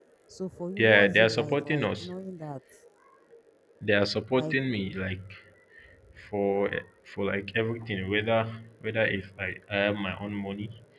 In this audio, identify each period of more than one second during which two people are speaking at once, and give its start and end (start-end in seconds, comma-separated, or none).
0.8-2.1